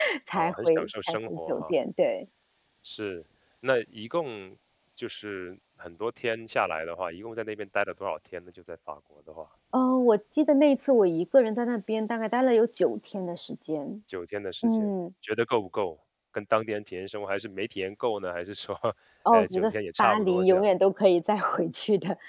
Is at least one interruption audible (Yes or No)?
Yes